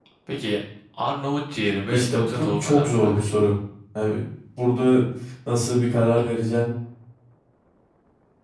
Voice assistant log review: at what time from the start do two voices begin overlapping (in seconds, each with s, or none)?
1.9 s